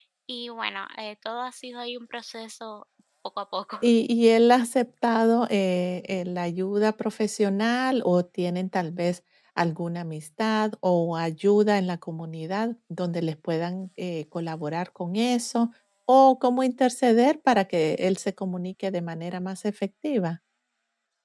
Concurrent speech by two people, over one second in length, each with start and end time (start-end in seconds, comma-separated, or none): none